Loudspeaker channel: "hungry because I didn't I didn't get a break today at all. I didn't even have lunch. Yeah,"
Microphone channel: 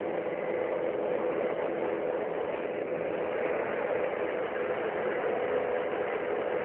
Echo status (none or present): none